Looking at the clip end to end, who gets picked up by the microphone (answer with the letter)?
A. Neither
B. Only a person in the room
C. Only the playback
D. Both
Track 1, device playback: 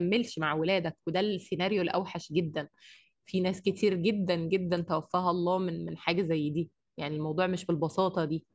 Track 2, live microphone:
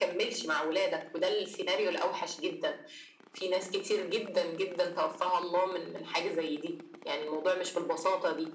C